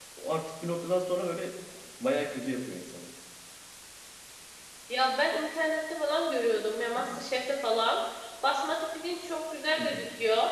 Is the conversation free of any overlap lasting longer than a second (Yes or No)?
Yes